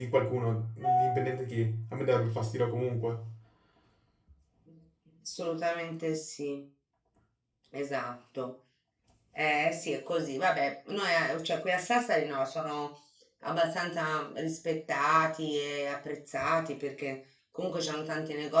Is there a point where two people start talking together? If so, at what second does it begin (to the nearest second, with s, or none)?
none